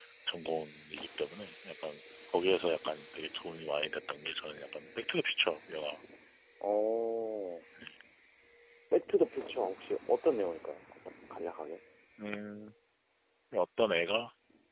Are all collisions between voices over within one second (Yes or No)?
Yes